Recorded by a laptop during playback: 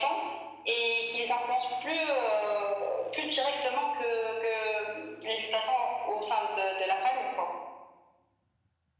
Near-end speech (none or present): none